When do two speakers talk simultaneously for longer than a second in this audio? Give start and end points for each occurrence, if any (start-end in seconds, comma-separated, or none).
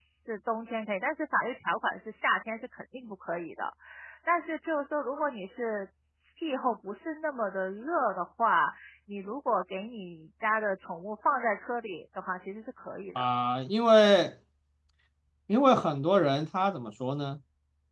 none